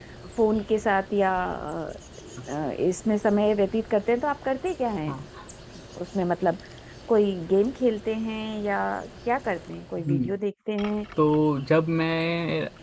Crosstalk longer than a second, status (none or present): none